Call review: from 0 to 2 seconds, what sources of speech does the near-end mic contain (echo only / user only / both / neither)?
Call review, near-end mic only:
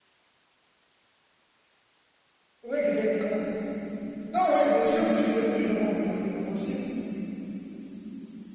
neither